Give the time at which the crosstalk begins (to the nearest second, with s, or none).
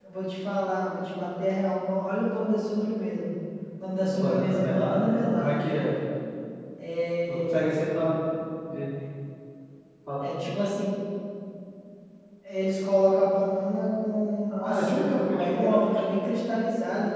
4 s